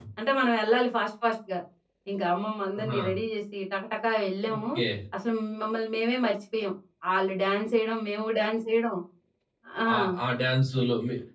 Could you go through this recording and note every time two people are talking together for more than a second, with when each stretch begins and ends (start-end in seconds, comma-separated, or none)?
none